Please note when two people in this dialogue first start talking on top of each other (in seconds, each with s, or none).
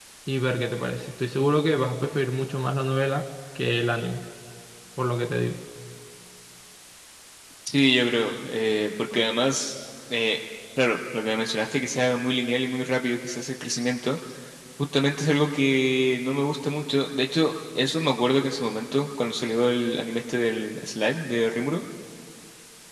none